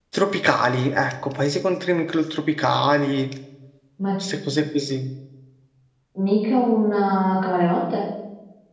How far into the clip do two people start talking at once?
none

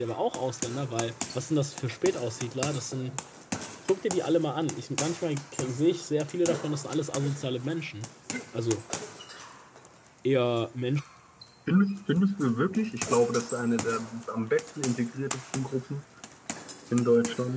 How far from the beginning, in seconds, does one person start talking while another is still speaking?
none

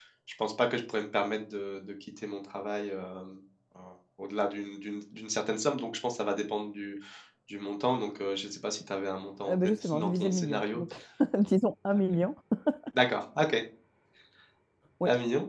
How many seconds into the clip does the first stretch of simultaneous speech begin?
9.4 s

